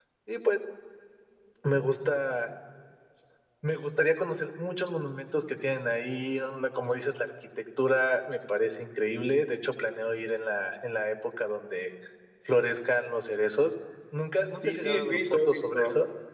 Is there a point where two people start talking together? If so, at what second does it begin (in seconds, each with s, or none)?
14.5 s